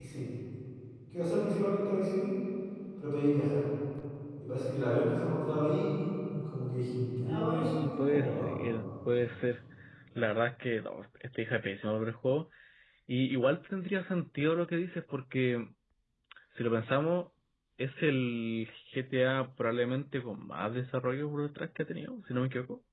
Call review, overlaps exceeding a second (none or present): present